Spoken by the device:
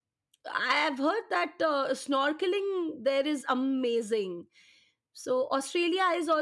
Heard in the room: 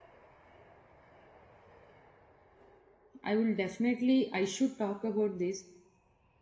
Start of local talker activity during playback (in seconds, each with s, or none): 3.2 s